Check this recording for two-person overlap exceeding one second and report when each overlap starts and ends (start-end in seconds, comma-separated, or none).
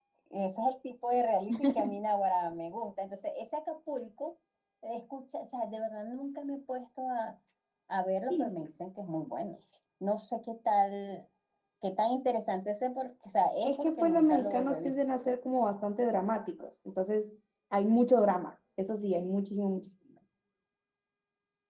13.6-14.9